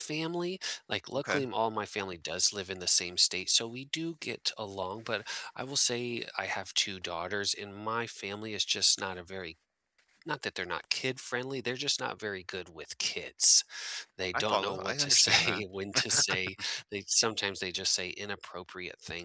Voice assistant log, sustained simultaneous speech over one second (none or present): present